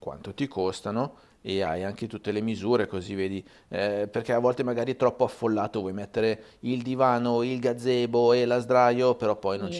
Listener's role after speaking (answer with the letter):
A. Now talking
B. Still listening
A